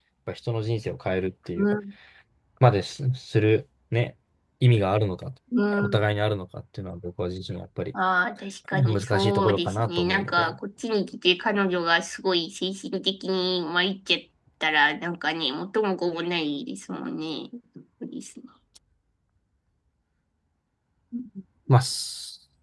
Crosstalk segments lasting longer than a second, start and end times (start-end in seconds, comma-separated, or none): 8.7-10.5